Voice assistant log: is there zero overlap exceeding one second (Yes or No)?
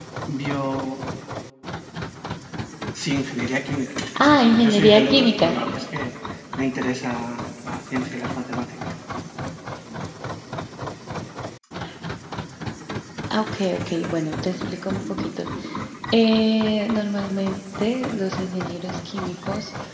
No